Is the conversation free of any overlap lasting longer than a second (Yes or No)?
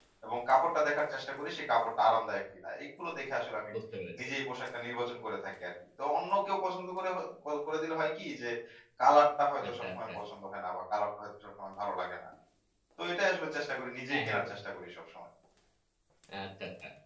Yes